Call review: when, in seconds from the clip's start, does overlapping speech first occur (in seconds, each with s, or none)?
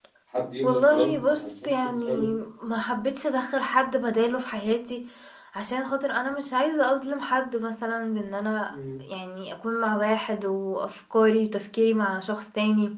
0.6 s